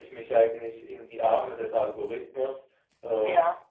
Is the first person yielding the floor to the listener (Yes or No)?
No